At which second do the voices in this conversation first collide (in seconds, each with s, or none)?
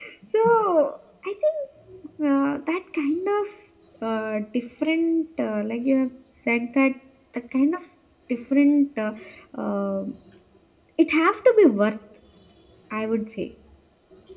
none